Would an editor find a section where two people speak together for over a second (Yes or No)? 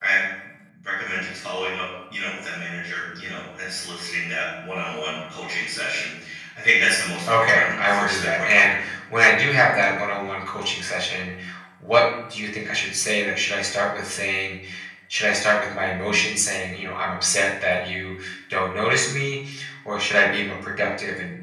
Yes